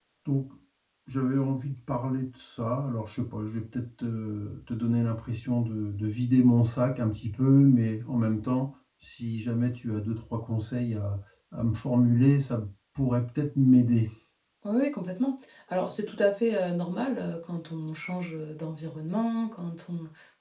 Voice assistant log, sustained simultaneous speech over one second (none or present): none